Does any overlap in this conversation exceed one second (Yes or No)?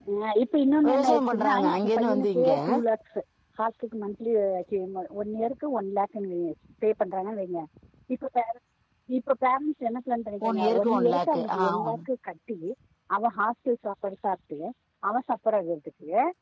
Yes